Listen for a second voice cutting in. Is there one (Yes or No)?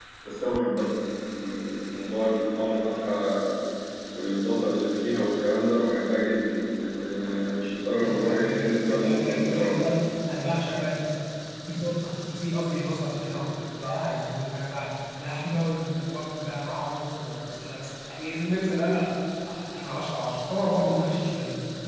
Yes